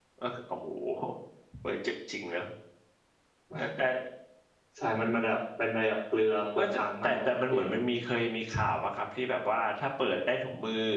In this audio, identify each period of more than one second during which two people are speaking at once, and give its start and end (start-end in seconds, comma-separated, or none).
6.6-7.8